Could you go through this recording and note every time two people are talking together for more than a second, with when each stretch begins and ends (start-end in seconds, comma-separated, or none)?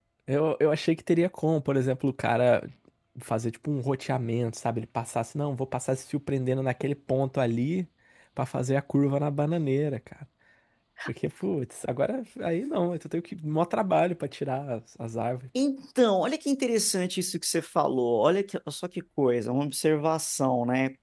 none